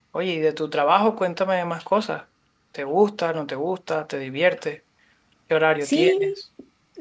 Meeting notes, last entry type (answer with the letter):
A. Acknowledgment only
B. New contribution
B